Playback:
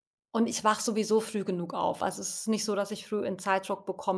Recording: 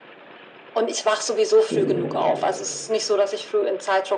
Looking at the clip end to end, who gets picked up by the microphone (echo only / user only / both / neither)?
both